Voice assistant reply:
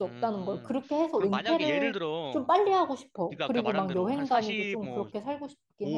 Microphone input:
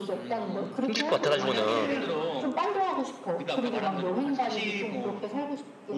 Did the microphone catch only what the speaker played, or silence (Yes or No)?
No